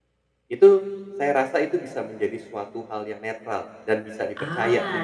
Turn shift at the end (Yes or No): Yes